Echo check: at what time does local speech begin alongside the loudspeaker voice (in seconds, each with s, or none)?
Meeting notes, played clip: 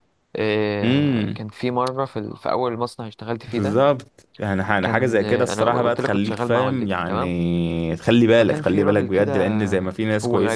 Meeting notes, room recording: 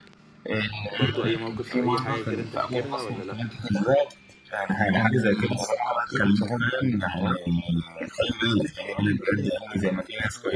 0.9 s